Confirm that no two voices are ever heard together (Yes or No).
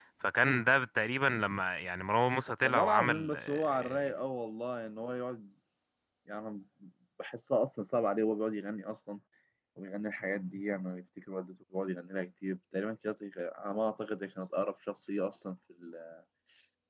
No